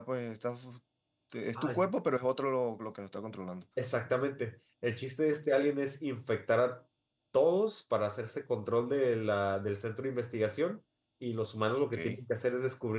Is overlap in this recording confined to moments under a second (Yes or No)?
Yes